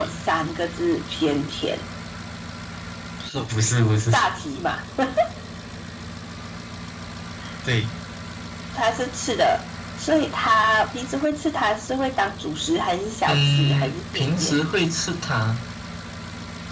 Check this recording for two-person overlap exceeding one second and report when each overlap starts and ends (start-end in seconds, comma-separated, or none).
13.3-14.5